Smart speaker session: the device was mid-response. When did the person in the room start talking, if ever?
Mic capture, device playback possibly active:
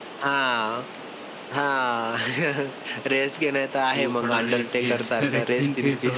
3.9 s

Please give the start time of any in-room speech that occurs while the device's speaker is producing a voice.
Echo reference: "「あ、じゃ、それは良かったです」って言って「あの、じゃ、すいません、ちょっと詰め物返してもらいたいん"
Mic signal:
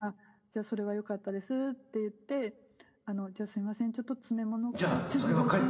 4.7 s

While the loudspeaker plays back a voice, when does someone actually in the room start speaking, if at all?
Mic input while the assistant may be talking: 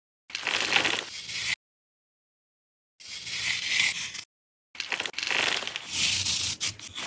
none

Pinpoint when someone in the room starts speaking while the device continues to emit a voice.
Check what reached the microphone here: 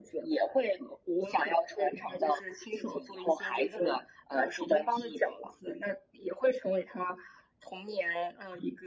none

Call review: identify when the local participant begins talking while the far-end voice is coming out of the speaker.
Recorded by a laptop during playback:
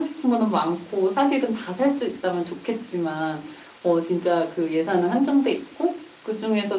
none

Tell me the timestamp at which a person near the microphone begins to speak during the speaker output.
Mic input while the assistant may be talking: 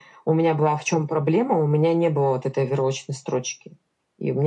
none

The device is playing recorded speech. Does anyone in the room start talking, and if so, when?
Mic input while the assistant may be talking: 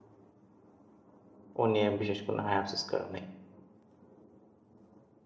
1.6 s

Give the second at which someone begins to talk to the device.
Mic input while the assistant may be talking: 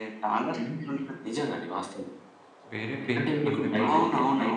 2.7 s

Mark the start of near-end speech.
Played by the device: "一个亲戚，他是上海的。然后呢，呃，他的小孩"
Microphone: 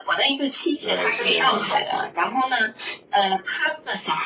0.8 s

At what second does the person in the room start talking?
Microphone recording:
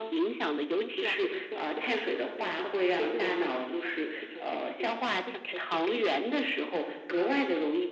none

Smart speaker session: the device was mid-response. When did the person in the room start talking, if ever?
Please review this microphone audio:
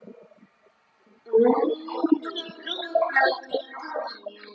none

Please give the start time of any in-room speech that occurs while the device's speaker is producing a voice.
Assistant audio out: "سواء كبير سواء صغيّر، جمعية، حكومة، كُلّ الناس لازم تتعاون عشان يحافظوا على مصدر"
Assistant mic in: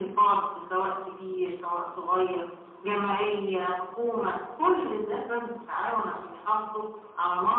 none

